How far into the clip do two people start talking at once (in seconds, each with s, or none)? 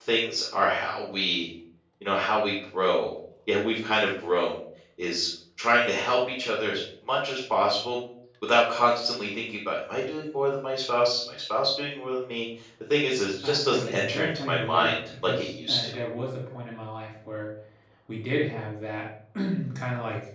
13.4 s